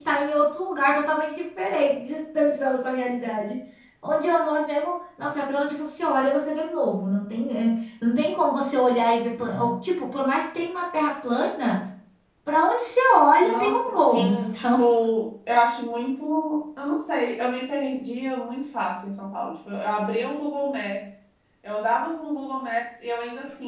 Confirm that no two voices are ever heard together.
No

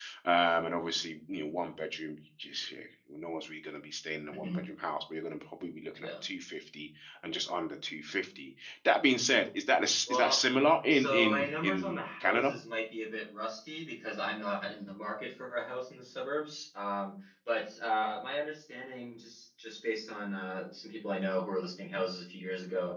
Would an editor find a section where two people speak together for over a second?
Yes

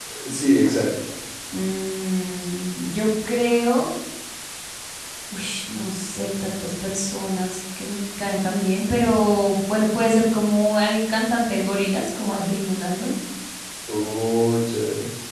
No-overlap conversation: Yes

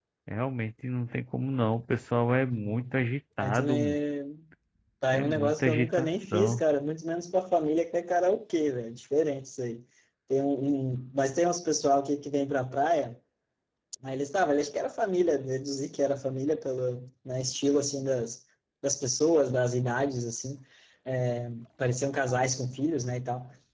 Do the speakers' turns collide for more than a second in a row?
Yes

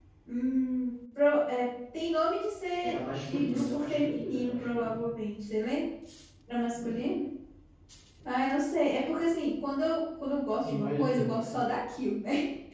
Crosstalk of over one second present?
Yes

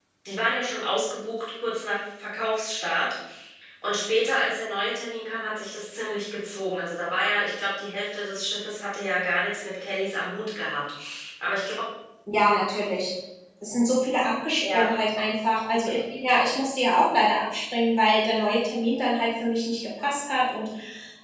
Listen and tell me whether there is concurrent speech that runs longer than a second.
No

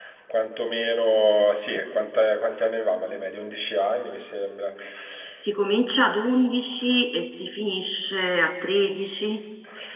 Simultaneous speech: No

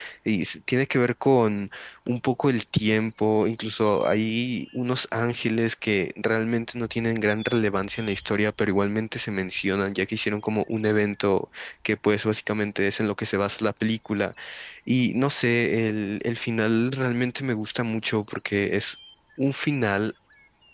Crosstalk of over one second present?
No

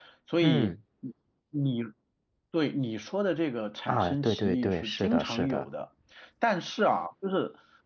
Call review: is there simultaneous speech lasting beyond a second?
Yes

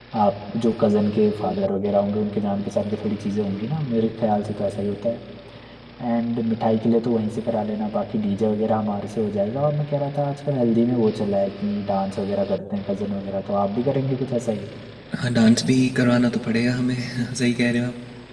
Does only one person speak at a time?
Yes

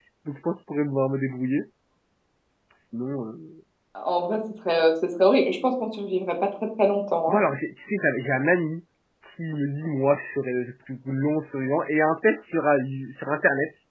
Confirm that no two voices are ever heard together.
Yes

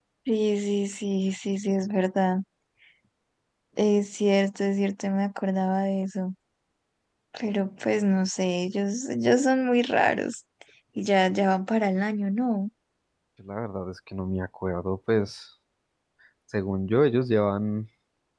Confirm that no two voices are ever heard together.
Yes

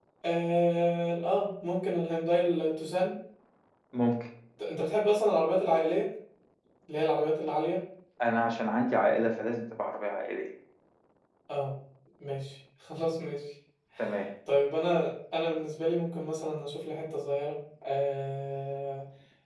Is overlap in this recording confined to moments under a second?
Yes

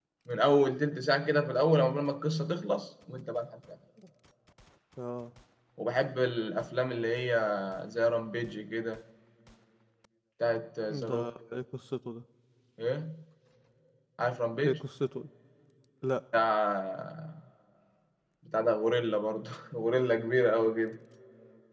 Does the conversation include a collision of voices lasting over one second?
No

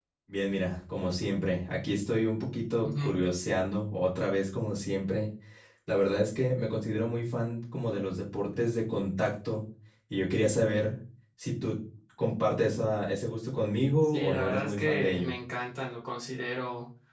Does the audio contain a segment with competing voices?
Yes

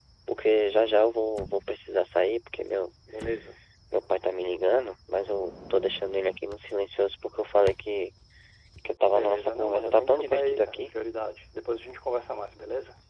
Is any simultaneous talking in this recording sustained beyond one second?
Yes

